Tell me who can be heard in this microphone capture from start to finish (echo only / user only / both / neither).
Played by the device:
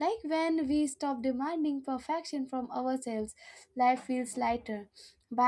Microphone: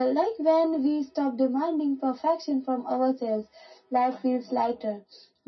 echo only